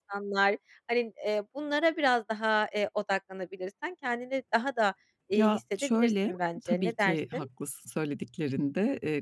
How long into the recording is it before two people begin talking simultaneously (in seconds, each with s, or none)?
5.3 s